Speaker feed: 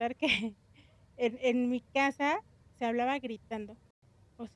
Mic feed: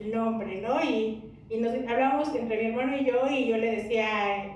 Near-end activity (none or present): present